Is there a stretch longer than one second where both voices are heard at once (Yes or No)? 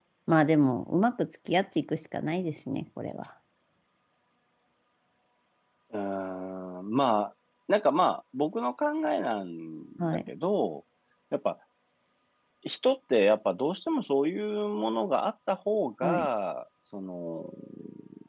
No